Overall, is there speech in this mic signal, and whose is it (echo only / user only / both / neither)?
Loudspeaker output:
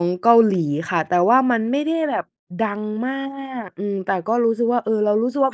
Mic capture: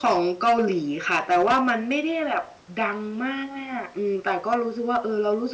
echo only